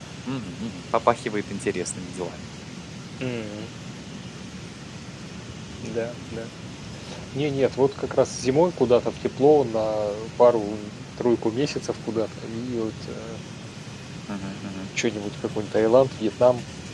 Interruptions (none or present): none